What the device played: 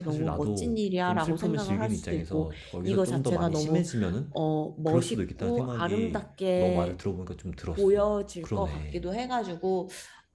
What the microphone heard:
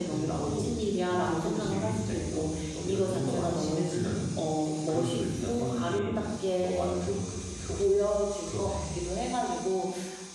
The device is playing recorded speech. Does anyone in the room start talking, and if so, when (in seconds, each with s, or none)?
none